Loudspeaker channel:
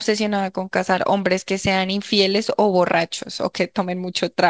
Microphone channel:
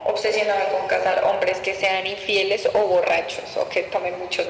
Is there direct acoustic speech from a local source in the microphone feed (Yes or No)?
No